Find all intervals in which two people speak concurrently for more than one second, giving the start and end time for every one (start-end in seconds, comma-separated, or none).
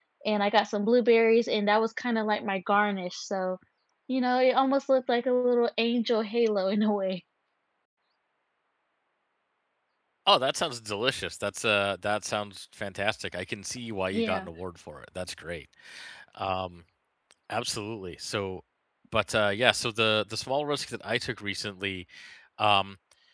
none